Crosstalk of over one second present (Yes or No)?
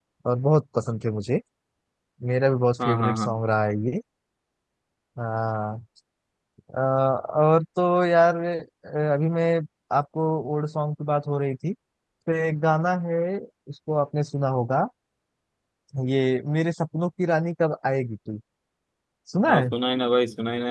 No